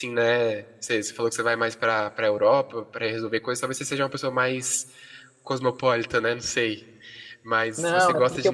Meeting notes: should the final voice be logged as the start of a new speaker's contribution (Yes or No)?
Yes